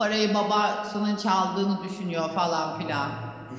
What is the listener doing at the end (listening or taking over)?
taking over